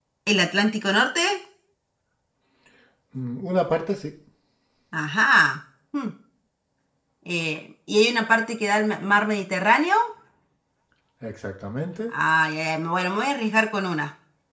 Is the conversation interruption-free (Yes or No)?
Yes